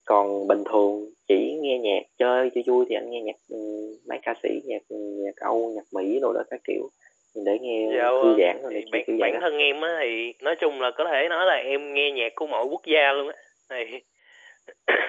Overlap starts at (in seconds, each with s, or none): 7.8 s